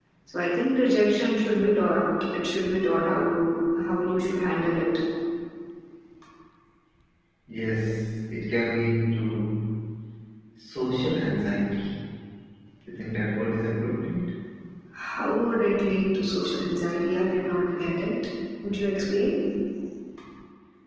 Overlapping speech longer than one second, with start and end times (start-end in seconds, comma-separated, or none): none